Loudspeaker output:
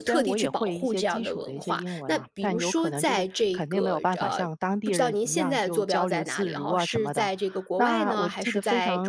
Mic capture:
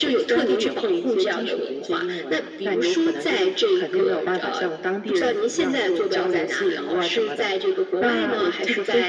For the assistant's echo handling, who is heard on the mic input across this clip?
echo only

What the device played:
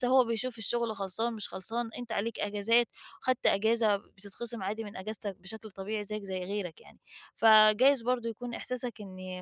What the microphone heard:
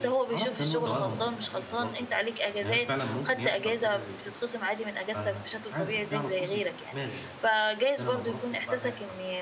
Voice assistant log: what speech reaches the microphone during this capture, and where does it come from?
both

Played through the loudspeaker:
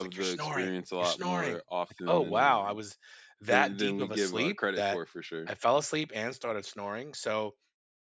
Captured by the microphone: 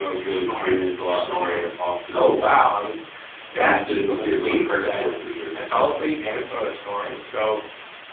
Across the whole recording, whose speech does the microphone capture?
echo only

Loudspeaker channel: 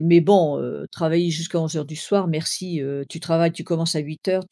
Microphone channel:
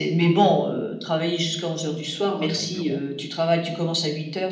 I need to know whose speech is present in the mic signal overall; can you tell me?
both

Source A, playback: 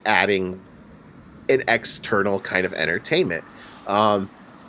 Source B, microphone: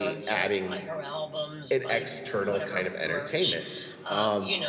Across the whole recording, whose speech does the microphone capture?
both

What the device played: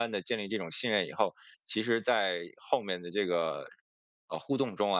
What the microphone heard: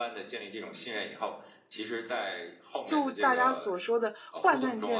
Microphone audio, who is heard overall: both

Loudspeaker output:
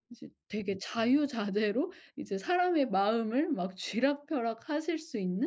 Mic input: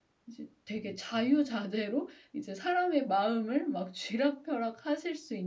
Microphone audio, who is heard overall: echo only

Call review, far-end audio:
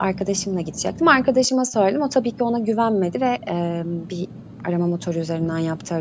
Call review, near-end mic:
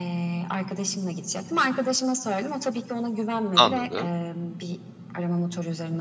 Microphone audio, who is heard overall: both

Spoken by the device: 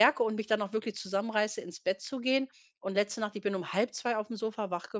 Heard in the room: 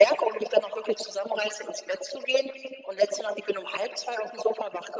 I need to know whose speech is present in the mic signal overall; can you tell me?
echo only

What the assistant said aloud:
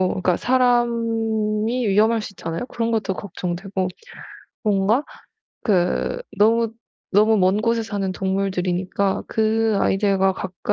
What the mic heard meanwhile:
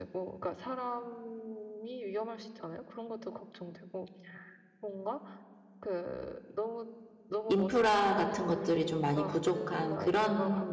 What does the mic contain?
both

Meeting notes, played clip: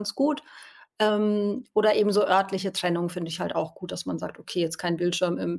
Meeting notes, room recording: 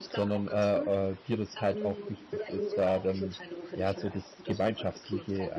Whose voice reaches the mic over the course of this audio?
both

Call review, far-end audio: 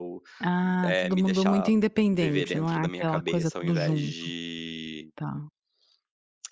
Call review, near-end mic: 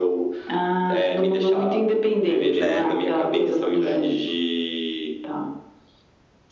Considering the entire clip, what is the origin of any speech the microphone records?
both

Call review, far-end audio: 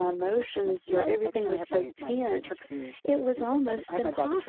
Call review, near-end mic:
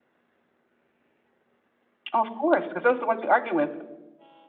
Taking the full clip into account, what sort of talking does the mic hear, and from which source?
user only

